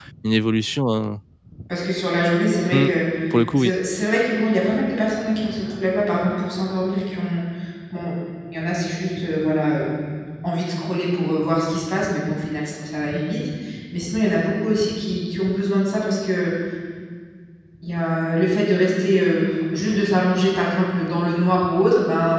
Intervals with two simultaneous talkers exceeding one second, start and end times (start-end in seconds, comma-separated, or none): none